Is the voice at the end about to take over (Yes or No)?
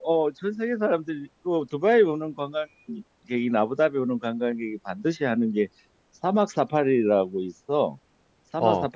No